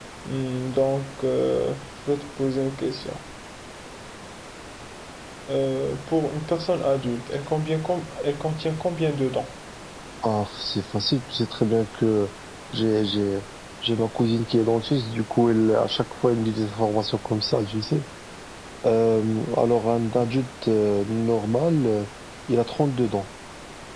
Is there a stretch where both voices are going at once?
No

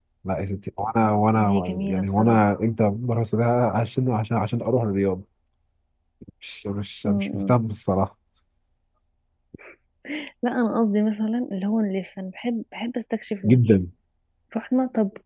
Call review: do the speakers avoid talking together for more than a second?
No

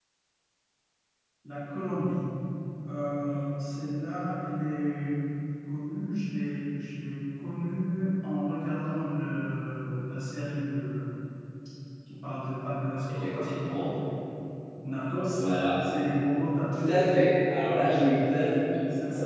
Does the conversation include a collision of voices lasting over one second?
No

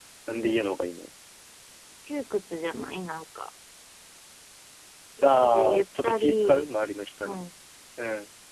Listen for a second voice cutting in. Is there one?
Yes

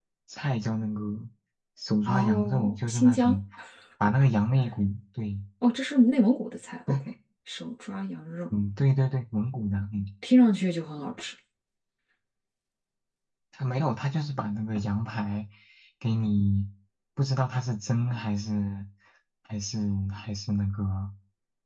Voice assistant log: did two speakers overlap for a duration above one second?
Yes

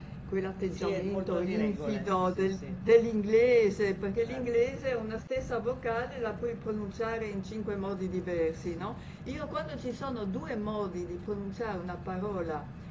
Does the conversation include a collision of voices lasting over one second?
Yes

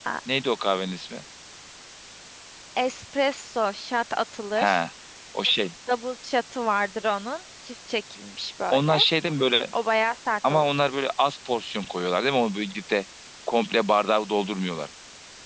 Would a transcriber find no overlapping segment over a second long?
Yes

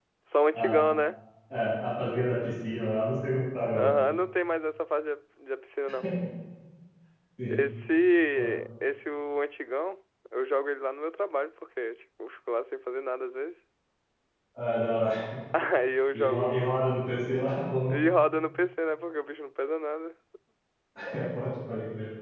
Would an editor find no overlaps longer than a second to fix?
Yes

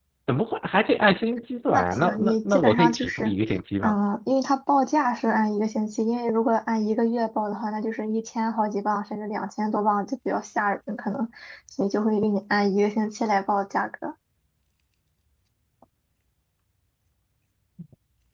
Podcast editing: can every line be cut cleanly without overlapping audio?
No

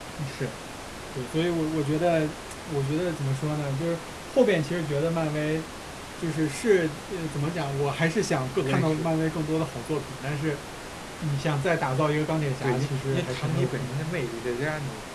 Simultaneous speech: Yes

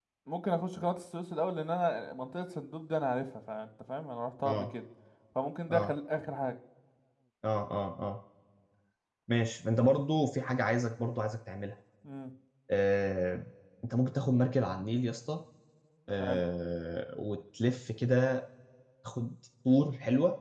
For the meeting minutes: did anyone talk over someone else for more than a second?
No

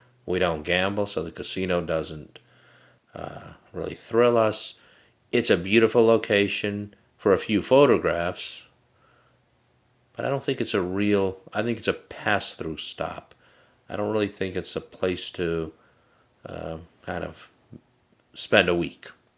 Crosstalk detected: No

